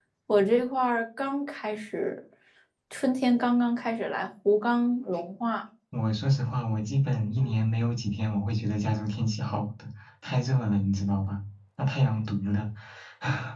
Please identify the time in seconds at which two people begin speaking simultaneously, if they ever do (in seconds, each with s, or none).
none